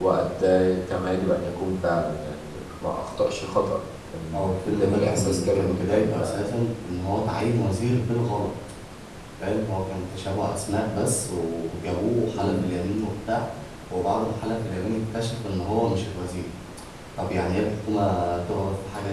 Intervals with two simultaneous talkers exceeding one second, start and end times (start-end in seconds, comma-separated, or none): 4.3-6.4